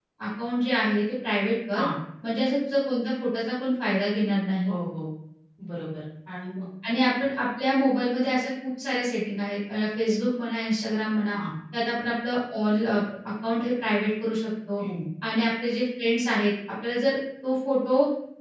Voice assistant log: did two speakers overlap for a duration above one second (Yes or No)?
No